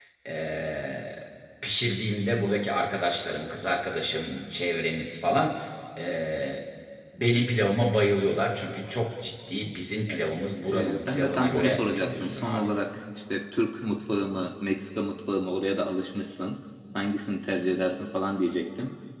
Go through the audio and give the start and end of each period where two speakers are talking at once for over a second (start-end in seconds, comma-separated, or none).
10.7-12.7